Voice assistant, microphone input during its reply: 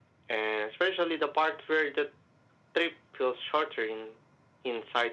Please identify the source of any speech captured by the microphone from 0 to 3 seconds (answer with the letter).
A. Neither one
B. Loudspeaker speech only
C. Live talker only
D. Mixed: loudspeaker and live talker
B